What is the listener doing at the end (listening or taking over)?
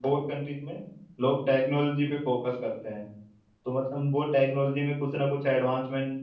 listening